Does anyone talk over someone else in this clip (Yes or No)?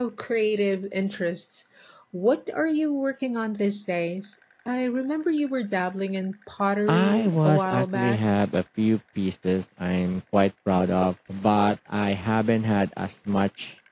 Yes